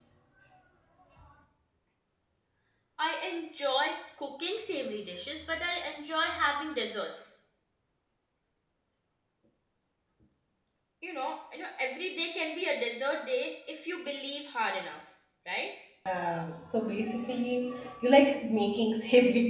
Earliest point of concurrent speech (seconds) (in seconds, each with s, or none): none